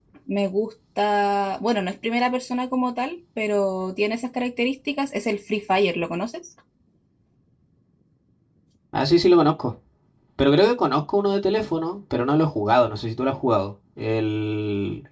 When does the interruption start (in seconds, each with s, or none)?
none